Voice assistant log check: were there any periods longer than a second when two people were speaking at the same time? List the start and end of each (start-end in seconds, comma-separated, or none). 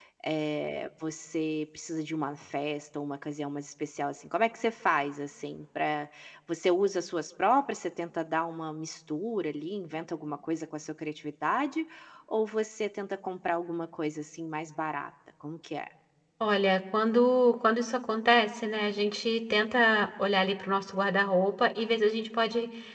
none